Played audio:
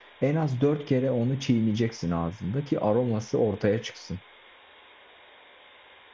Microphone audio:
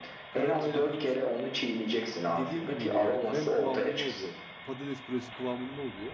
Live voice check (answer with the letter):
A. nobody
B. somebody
B